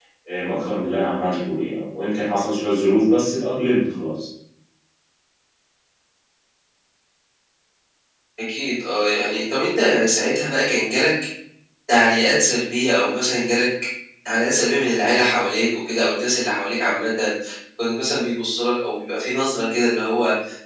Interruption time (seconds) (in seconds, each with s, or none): none